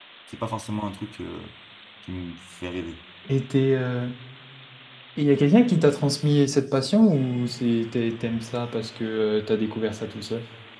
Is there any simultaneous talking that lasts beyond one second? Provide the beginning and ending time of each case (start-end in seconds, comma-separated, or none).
none